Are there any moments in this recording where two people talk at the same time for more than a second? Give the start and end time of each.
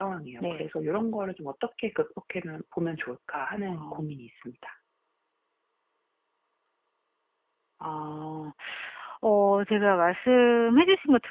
none

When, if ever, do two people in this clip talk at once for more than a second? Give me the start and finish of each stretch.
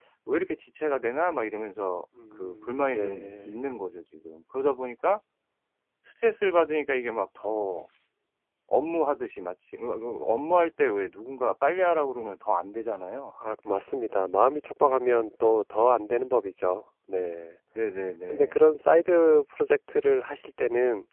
2.4-3.7

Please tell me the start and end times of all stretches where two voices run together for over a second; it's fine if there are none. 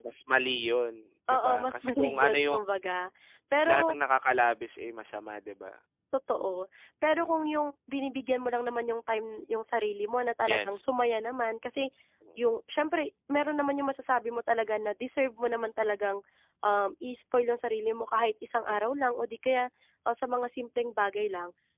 1.3-2.6

